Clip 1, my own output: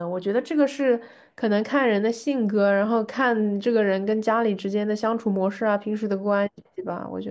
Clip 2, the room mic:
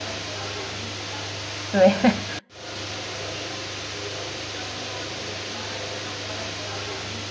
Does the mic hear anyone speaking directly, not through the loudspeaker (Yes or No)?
Yes